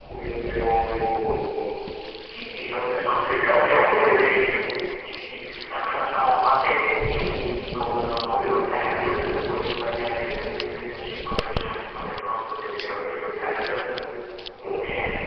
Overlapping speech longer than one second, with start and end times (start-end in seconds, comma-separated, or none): 2.9-4.5